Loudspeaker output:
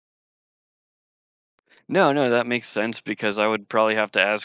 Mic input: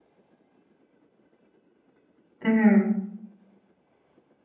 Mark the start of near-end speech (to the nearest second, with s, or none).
2 s